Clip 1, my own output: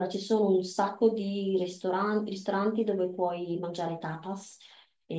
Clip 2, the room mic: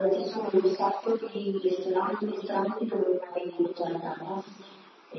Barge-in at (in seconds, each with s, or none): none